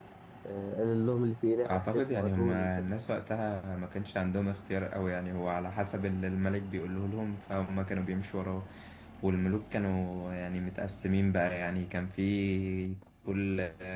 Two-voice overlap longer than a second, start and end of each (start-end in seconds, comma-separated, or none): 1.6-2.9